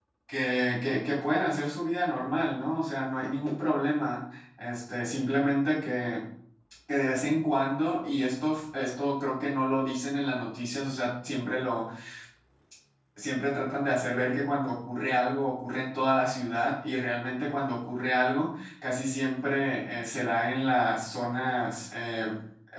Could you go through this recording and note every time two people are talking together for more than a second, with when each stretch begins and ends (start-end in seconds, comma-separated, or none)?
none